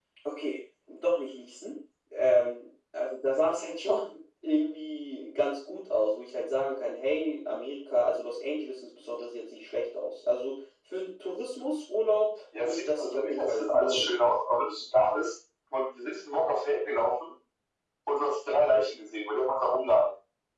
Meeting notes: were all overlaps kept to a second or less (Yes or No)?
No